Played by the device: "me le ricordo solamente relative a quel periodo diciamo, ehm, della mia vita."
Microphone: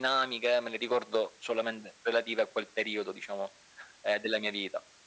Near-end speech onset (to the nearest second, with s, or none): none